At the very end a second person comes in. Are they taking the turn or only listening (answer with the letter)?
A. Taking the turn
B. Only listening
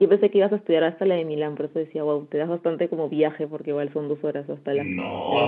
A